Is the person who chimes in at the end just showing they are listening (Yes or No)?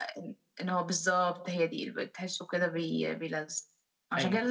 Yes